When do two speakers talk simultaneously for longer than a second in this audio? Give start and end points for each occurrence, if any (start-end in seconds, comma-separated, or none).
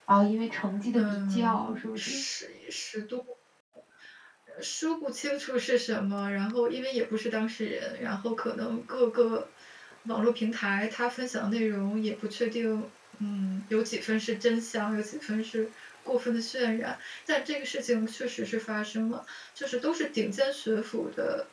1.0-2.2